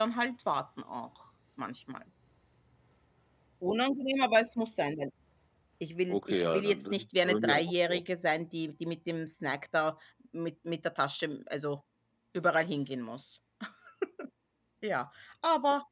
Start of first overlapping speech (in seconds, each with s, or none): 6.1 s